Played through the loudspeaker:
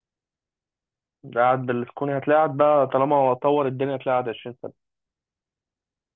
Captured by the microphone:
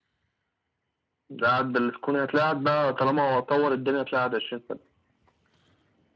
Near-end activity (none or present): none